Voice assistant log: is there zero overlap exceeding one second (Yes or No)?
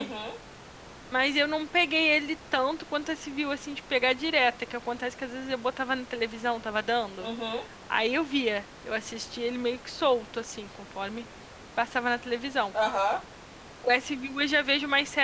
Yes